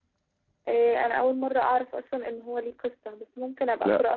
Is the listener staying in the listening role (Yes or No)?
No